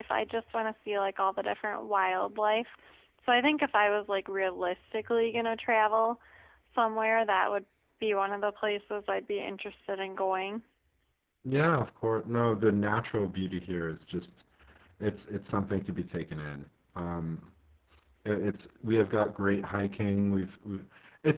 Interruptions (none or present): none